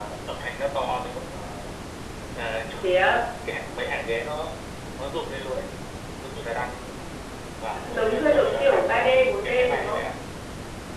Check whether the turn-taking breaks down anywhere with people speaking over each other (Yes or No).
Yes